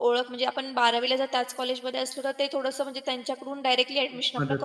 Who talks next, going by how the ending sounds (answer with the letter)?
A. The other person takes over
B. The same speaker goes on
A